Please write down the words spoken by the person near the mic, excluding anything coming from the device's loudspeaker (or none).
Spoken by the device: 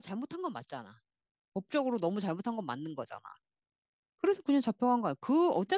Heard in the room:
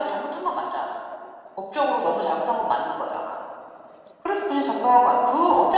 none